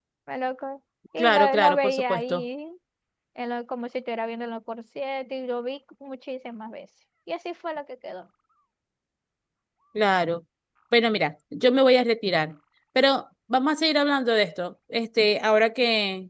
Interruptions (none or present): present